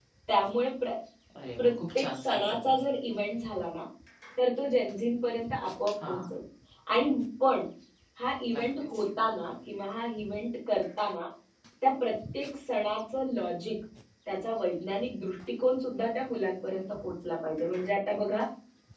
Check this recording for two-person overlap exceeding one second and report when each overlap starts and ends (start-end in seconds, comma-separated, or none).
1.6-2.8